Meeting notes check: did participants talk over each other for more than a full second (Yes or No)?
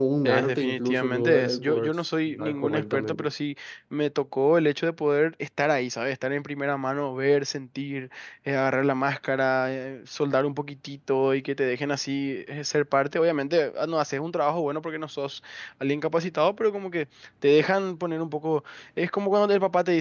Yes